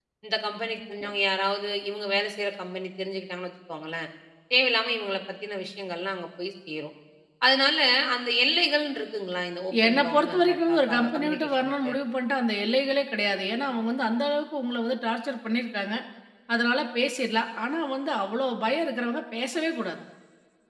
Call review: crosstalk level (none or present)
present